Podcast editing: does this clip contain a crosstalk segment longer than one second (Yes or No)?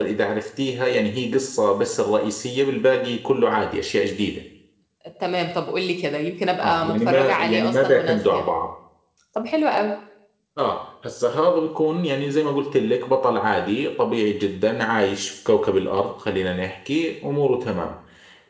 Yes